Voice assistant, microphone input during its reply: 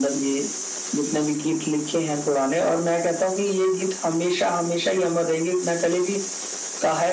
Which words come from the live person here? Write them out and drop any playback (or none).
none